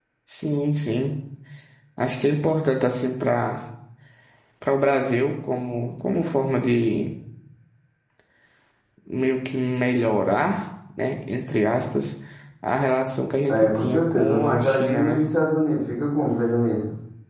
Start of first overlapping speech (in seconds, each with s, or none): 13.5 s